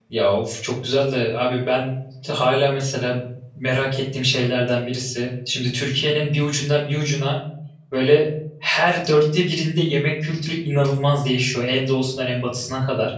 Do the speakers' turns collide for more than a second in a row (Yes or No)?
No